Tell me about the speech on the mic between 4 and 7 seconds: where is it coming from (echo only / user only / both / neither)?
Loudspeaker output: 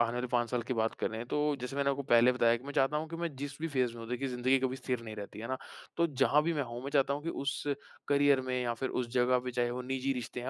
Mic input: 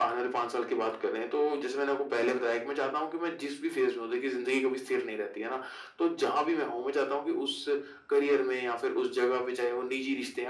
echo only